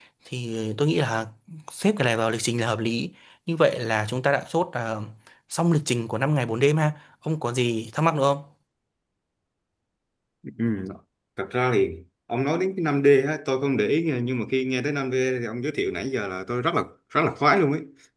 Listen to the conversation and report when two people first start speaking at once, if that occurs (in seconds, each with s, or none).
none